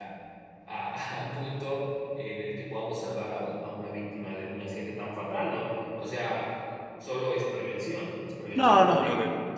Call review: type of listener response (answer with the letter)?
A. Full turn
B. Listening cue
A